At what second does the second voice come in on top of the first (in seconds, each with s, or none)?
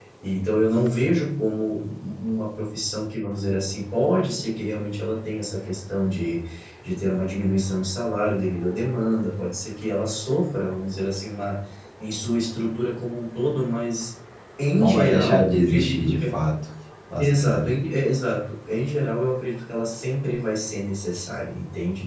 14.8 s